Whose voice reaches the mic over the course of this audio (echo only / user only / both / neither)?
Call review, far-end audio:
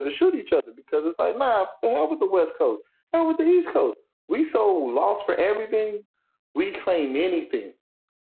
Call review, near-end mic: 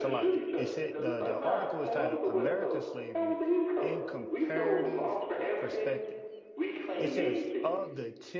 both